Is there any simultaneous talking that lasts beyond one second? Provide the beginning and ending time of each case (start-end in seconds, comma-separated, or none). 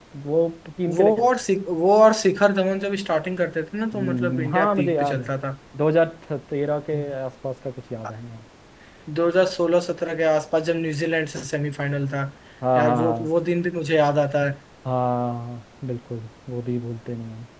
3.9-5.3